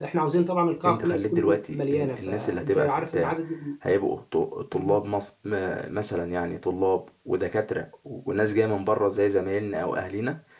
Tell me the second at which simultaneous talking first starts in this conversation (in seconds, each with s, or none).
0.8 s